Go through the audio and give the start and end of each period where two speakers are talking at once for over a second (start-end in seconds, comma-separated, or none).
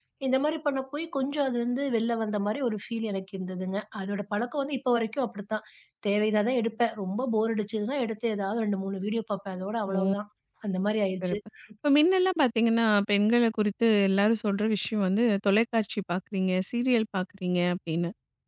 none